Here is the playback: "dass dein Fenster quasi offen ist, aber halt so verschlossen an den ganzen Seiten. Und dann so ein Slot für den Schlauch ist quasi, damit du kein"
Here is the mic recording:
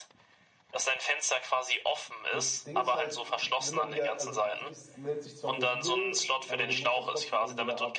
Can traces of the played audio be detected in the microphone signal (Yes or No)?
Yes